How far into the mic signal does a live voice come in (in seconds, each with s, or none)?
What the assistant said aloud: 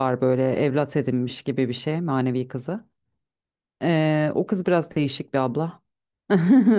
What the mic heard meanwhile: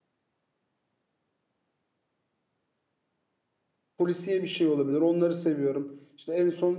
4.0 s